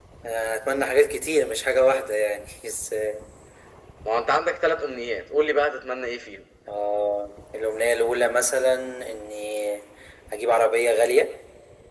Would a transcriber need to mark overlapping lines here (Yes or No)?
No